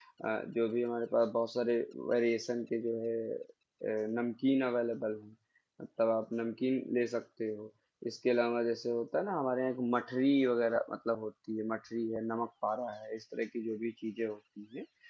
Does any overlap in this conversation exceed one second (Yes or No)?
No